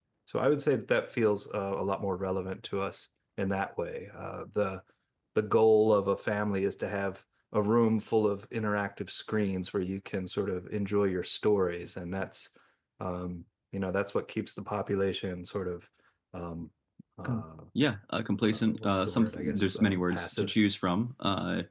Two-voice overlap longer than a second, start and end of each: 18.5-20.5

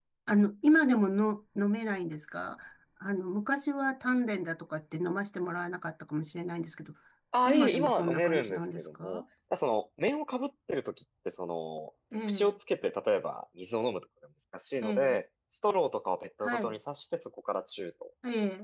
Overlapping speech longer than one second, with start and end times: 7.5-9.2

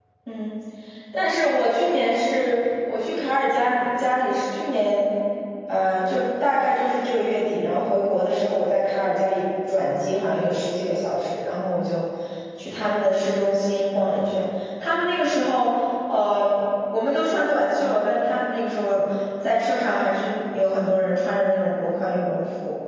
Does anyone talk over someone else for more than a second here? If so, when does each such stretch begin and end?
none

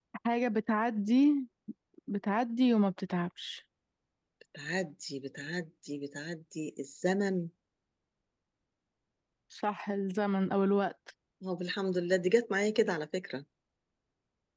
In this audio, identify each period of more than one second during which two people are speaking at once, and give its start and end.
none

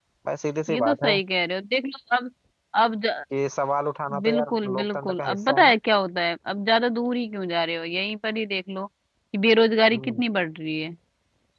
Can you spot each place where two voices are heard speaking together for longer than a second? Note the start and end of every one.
4.2-5.8

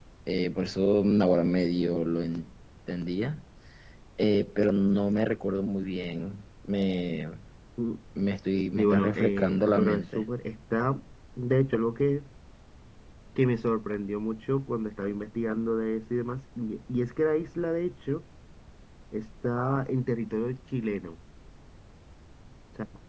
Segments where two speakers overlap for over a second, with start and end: 8.8-10.2

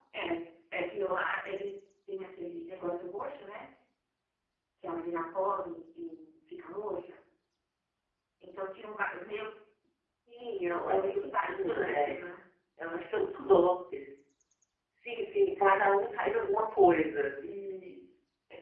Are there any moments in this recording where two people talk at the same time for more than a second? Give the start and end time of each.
10.9-12.1

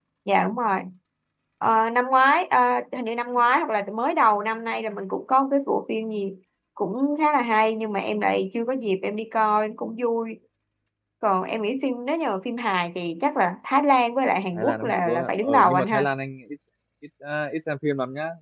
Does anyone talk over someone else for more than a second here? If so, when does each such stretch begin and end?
14.5-16.1

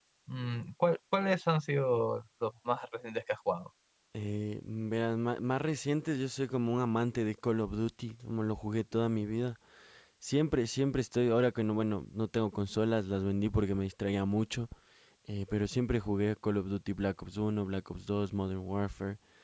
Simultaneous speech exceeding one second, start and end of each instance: none

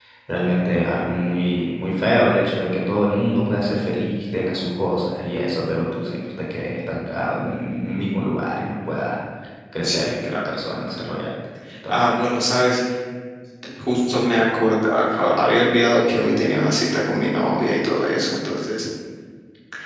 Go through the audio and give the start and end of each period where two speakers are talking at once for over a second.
9.8-11.1

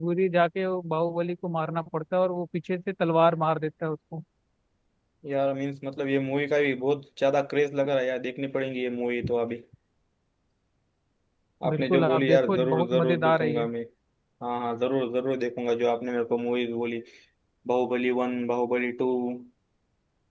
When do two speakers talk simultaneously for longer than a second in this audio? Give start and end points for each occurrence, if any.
11.7-13.6

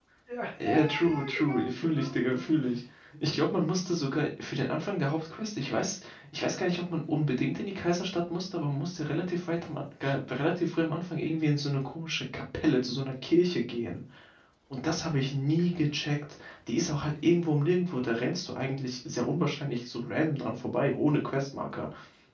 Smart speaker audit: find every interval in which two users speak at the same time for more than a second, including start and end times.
0.6-2.5

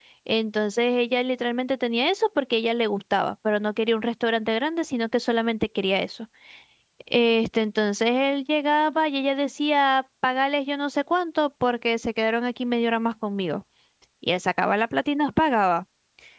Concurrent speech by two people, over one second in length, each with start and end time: none

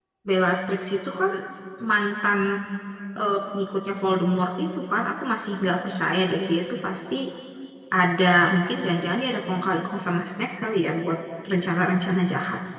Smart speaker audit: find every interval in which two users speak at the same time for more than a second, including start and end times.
none

